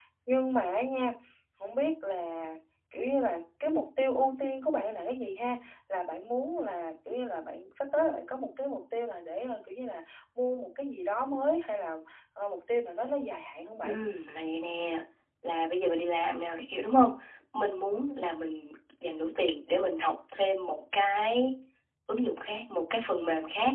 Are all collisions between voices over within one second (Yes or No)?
Yes